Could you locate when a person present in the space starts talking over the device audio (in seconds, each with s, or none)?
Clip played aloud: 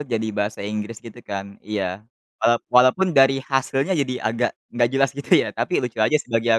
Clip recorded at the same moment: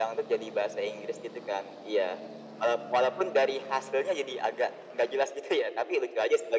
none